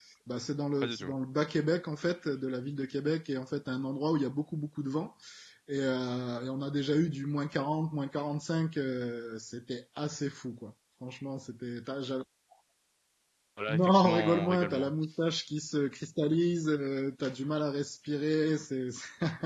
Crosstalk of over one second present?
Yes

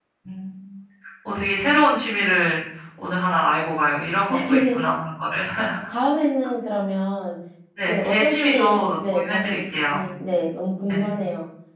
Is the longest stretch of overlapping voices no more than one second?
No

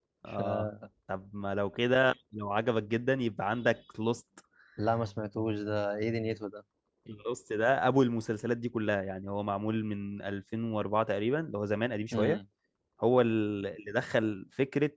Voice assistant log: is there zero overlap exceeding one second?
Yes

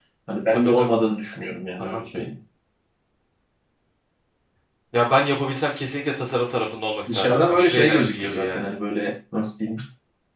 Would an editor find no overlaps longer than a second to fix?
No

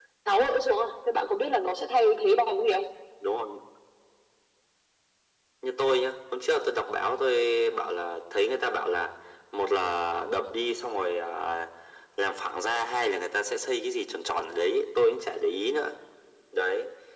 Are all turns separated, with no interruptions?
Yes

